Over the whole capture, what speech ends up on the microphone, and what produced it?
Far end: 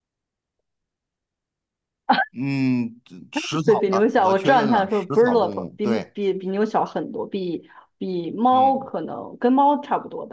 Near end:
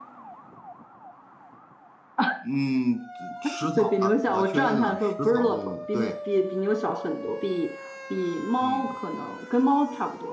echo only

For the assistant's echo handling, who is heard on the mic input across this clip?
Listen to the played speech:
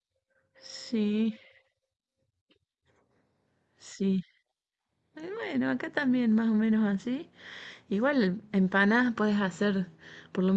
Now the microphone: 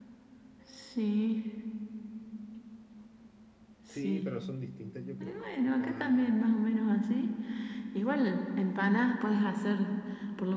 both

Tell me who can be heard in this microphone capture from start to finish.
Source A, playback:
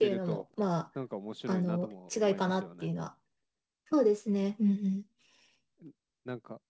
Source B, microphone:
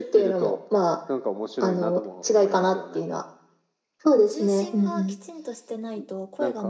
both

